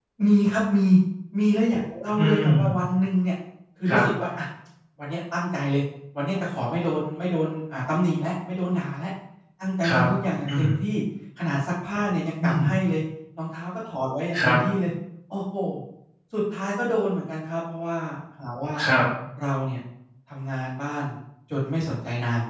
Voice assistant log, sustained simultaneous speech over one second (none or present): none